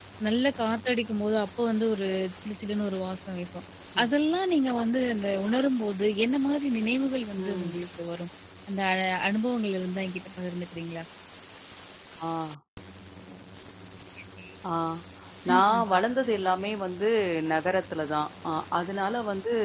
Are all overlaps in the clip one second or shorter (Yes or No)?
Yes